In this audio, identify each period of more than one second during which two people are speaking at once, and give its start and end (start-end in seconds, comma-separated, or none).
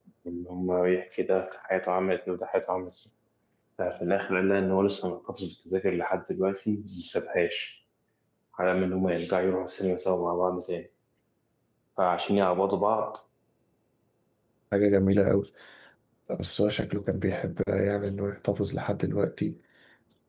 none